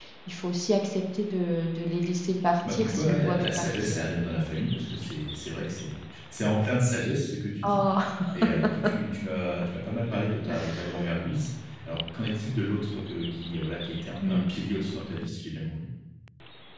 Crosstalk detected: Yes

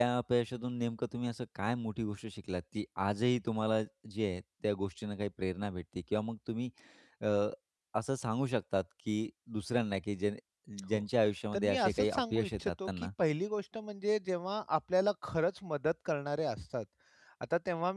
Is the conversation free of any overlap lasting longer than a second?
No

